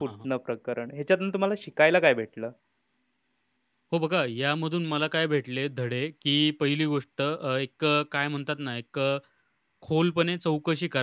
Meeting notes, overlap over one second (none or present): none